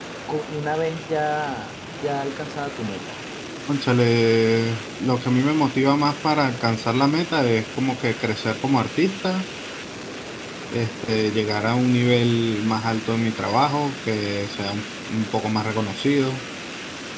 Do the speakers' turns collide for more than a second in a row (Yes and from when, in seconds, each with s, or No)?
No